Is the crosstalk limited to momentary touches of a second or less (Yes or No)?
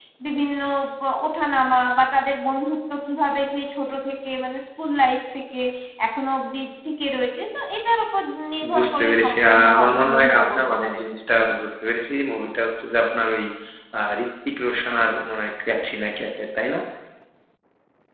No